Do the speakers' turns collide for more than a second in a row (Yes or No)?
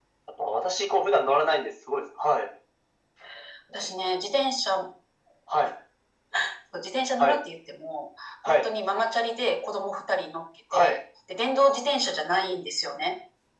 No